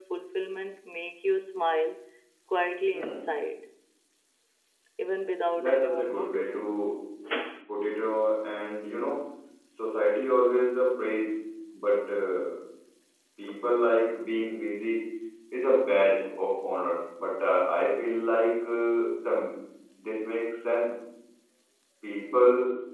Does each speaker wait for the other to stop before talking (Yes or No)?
No